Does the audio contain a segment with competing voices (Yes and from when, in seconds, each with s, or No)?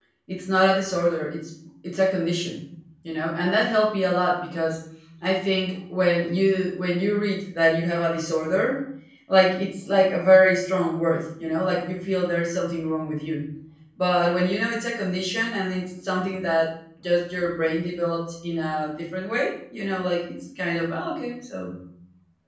No